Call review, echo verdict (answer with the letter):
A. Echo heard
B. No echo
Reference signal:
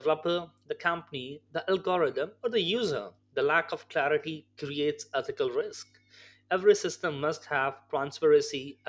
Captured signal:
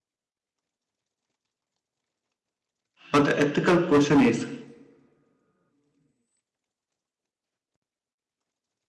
B